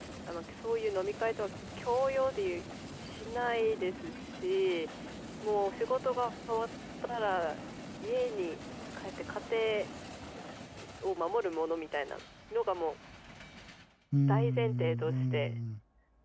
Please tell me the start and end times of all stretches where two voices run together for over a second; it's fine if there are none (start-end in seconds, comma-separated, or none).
14.3-15.6